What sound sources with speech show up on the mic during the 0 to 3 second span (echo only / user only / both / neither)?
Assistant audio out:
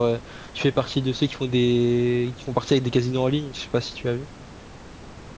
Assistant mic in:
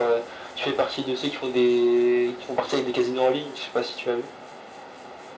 echo only